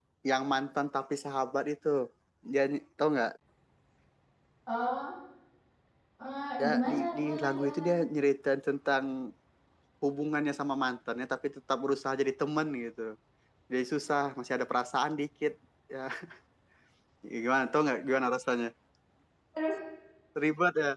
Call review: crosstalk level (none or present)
present